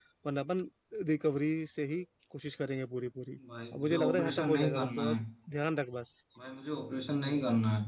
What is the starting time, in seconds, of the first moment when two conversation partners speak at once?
3.7 s

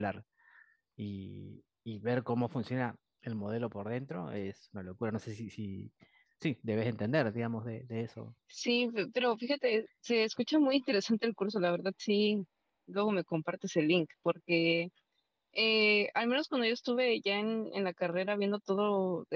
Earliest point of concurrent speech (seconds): none

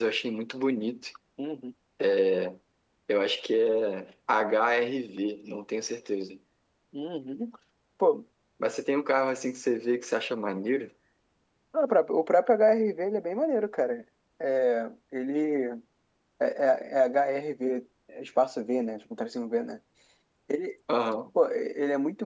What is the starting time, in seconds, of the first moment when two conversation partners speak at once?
none

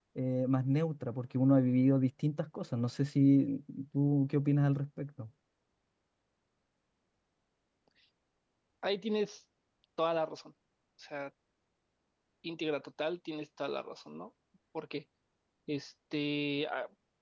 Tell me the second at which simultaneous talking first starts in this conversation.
none

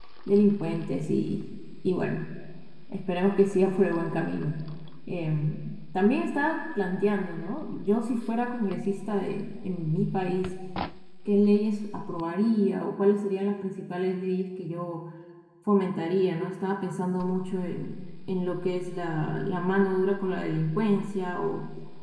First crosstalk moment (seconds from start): none

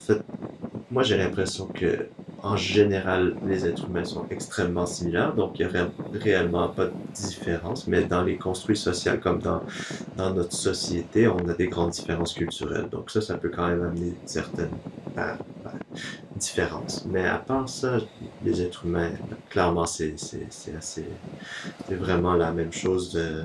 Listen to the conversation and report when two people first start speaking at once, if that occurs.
none

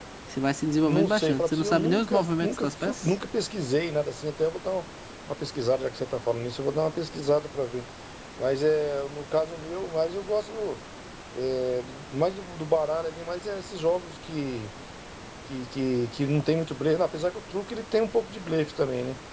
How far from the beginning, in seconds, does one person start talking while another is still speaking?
0.9 s

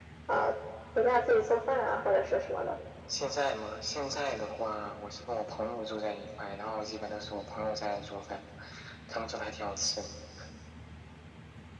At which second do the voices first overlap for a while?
none

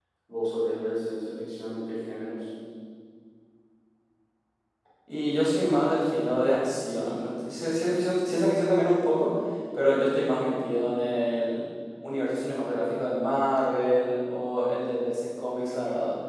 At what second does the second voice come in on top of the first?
none

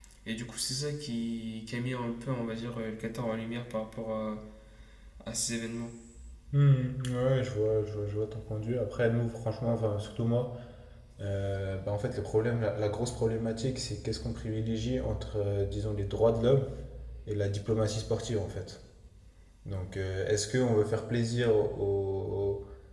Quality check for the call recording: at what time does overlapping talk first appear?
none

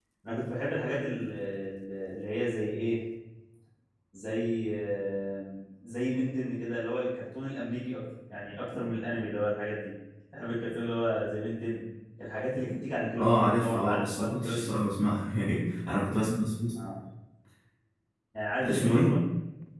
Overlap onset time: 13.2 s

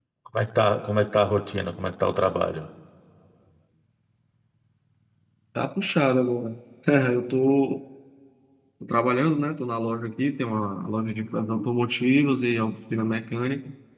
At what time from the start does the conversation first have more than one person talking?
none

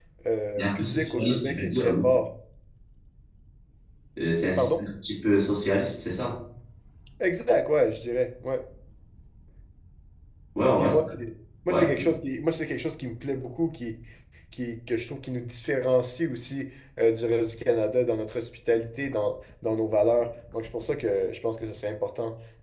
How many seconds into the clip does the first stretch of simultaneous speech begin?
0.6 s

